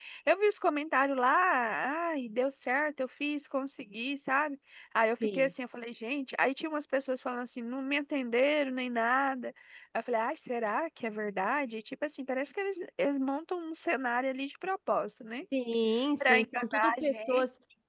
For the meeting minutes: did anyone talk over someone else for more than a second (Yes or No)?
Yes